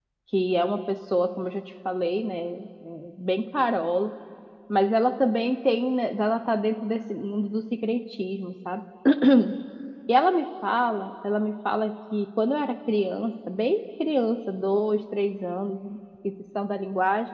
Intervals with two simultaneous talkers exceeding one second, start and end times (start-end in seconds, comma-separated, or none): none